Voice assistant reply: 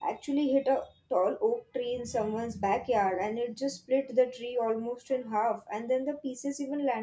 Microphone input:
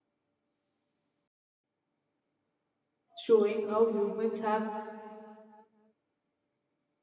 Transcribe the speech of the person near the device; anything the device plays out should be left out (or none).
showing how humans have